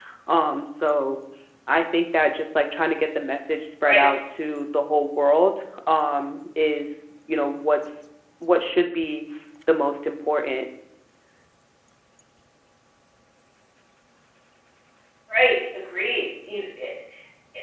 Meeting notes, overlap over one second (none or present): none